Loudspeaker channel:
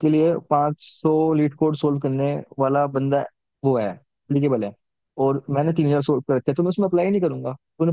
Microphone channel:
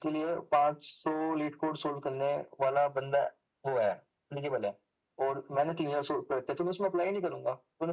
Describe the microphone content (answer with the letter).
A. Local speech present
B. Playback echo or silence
B